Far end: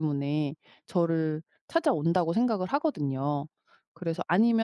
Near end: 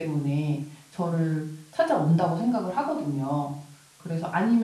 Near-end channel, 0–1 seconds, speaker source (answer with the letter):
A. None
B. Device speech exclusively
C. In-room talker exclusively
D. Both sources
B